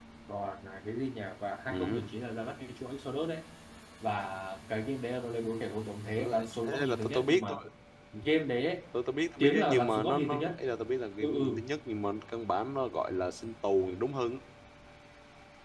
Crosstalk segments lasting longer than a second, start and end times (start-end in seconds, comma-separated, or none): 6.2-7.6, 9.4-10.6